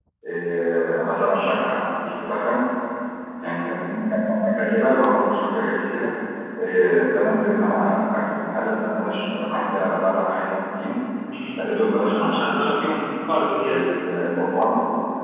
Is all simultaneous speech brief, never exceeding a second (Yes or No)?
Yes